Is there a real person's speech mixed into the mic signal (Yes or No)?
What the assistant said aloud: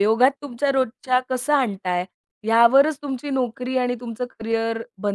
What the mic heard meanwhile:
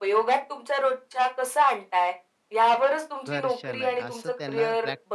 Yes